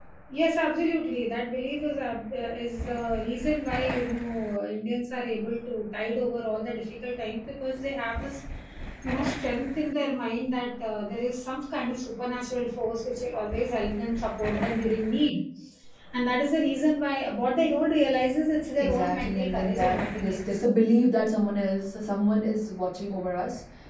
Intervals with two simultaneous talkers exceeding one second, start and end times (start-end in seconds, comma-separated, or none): 18.8-20.6